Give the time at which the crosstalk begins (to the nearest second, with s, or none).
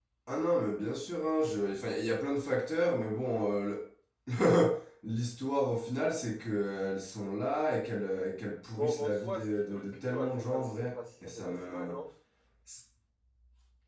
9 s